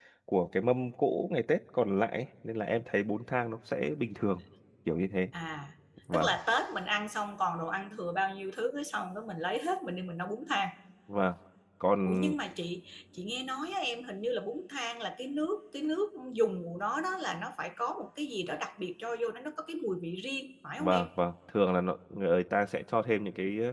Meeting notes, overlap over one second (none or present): none